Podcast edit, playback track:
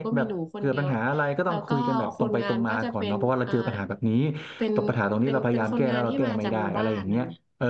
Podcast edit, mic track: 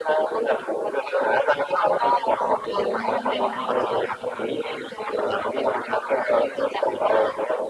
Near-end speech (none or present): present